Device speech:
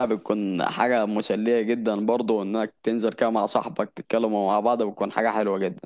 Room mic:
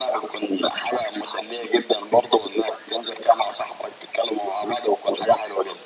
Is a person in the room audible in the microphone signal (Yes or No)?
No